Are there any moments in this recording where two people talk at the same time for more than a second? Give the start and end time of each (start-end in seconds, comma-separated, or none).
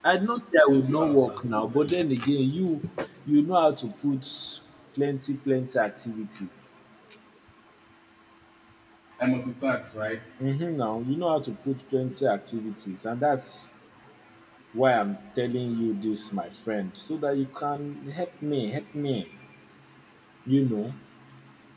0.7-2.0